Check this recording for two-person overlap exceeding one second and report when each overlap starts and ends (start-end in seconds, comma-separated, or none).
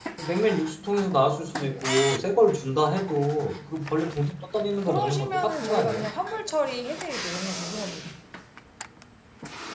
4.8-6.1